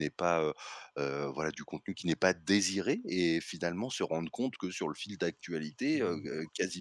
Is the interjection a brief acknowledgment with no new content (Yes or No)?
Yes